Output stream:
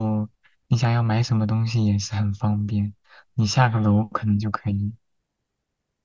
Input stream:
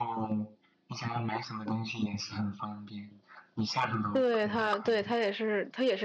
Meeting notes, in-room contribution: present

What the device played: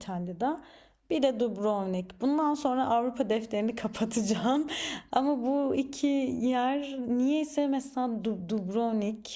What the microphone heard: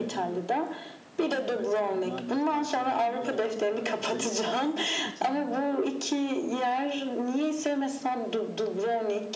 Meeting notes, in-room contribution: present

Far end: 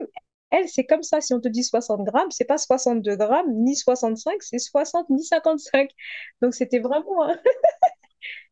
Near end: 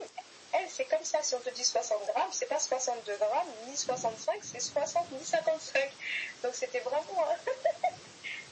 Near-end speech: none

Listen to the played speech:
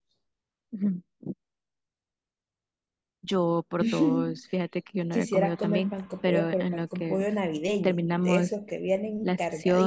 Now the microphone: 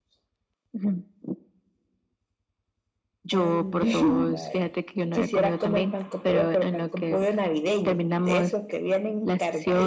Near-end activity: present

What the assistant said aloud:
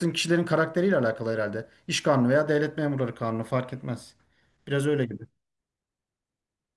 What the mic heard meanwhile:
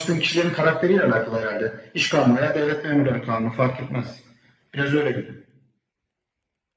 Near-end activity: none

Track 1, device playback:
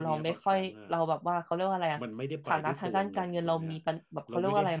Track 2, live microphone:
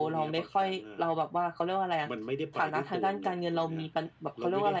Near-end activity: none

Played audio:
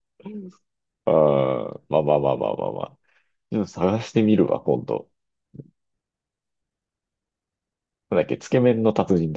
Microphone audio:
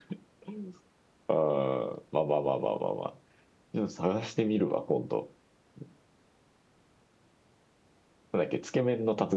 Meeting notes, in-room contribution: none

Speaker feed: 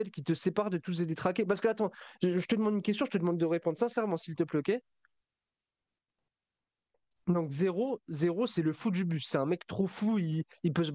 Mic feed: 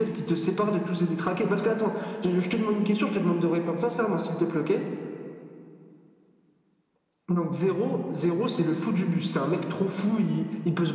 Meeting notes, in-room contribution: none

